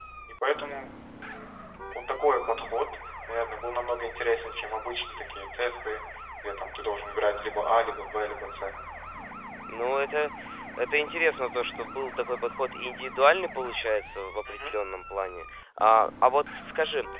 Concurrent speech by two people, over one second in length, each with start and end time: none

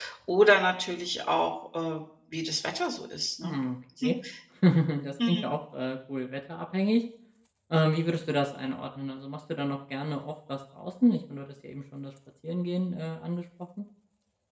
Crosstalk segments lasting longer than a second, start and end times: none

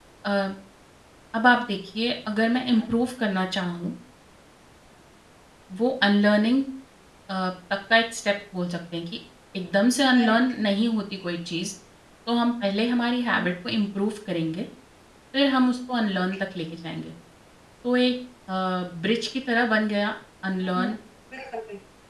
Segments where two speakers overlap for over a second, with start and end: none

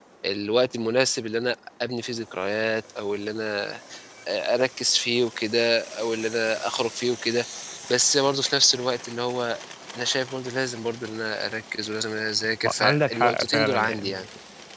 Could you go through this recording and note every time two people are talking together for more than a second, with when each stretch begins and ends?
12.8-14.2

